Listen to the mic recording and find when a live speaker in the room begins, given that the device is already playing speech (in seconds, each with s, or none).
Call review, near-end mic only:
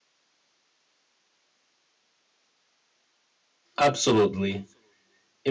3.8 s